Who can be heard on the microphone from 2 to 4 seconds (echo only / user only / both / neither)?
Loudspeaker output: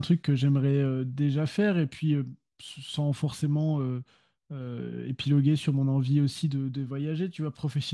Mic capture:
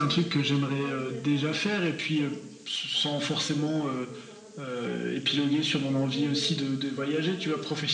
both